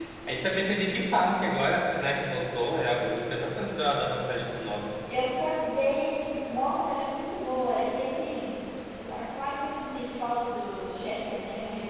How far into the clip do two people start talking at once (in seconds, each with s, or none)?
none